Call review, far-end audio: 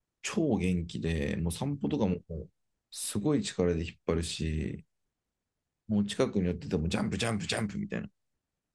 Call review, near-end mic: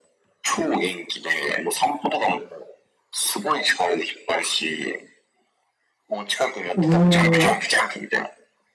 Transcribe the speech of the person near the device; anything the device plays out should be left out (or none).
おー、